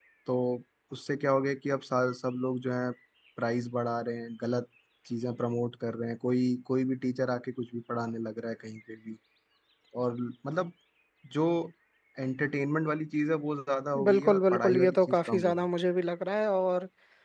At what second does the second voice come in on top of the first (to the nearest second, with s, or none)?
14 s